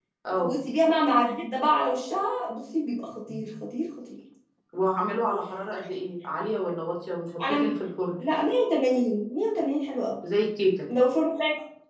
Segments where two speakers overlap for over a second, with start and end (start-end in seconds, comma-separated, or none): none